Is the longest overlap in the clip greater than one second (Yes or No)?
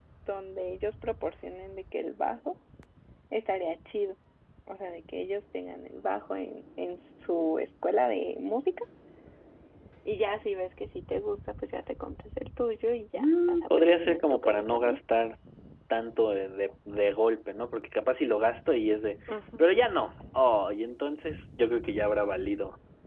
Yes